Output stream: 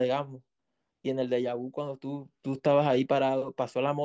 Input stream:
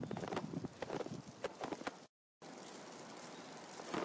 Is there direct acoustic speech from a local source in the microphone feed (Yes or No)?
No